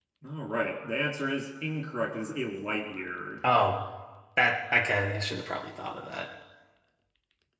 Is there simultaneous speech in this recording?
No

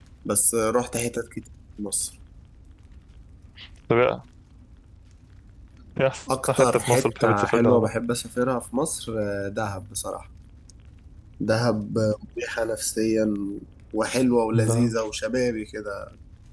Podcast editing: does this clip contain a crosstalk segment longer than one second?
Yes, from 6.5 s

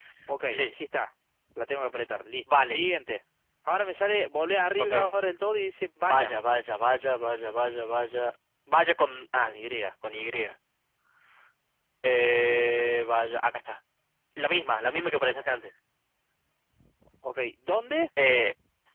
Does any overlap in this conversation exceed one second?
No

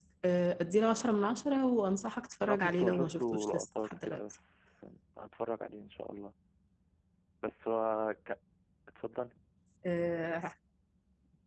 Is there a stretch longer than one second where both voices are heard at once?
Yes, from 2.4 s

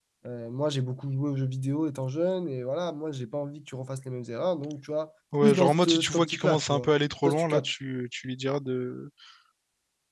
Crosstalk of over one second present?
Yes, from 5.3 s

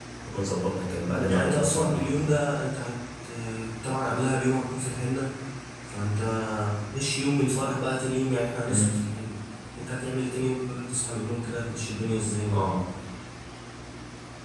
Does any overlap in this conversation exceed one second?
Yes, from 1.0 s

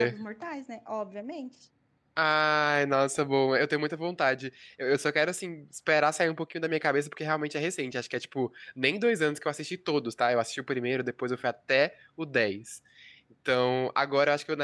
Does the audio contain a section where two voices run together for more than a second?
No

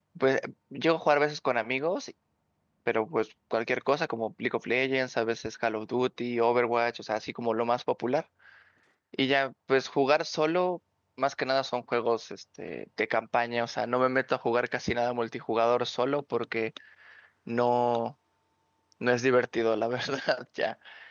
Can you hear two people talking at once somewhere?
No

